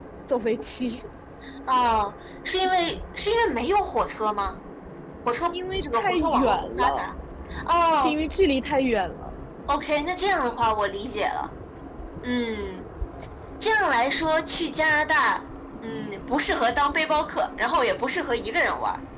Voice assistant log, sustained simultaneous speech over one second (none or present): present